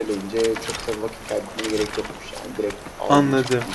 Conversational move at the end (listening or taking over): taking over